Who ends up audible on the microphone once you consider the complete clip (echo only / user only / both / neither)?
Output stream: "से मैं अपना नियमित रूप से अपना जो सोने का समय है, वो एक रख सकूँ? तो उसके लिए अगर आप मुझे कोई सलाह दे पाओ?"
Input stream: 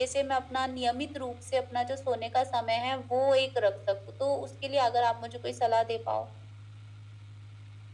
echo only